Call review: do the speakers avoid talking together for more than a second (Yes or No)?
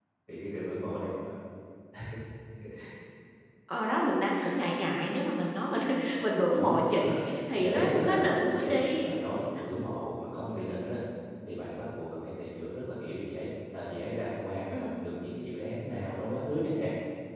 No